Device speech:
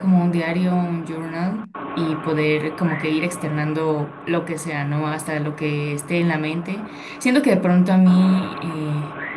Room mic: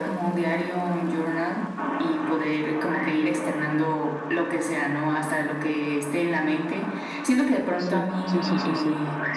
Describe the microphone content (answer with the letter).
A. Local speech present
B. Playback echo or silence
A